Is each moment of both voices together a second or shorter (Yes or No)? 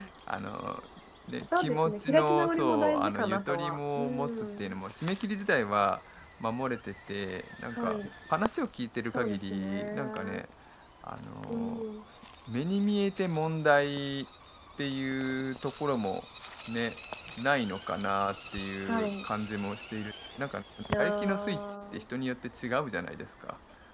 No